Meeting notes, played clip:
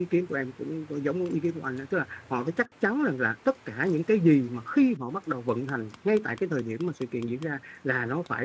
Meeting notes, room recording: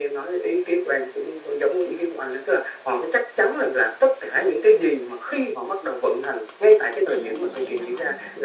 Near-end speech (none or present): present